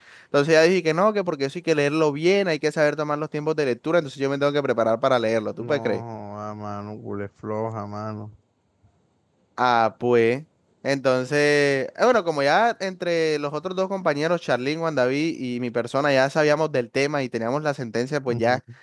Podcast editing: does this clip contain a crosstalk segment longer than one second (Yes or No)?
No